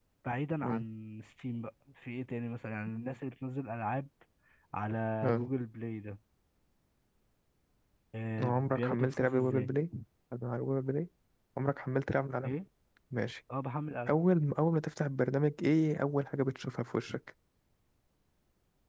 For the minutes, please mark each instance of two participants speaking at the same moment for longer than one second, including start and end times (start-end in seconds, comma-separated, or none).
8.4-9.7